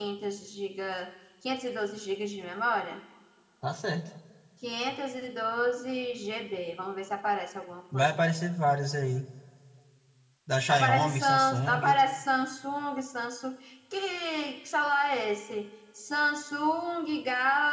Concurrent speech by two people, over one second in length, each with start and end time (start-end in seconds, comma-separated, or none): 10.7-12.0